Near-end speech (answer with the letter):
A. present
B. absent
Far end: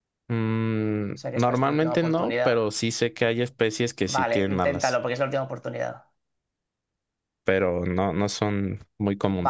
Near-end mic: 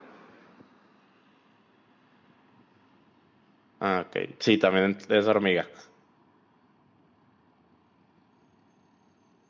A